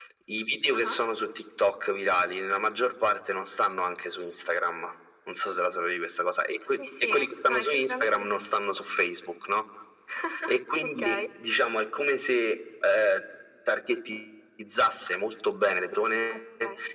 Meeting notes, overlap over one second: present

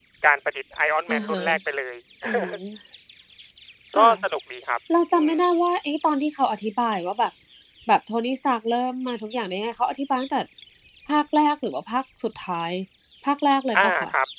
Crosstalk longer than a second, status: none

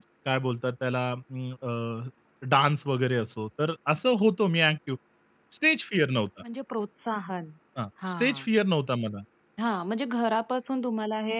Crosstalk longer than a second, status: none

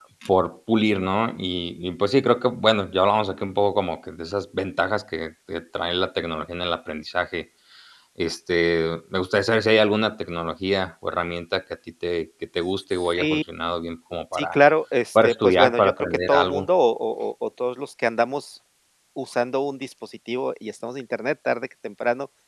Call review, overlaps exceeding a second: present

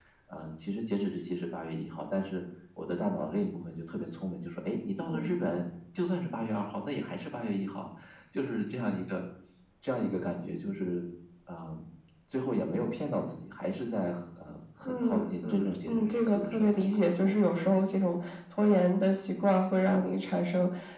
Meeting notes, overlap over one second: present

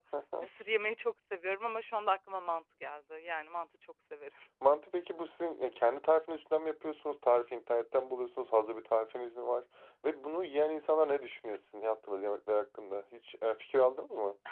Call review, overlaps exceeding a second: none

